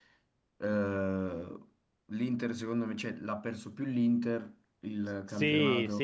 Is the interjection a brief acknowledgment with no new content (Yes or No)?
No